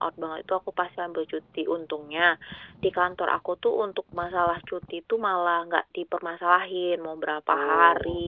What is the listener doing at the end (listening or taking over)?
listening